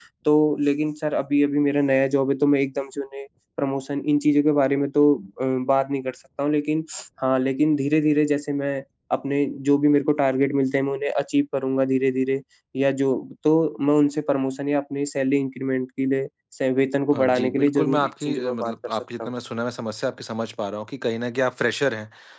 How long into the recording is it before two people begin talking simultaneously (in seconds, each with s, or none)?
17.1 s